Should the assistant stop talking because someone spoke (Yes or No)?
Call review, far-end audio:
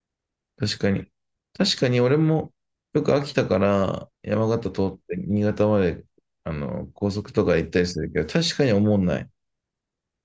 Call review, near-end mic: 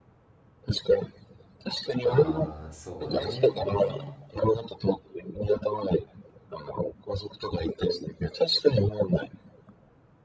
Yes